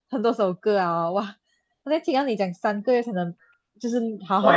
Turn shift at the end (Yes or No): No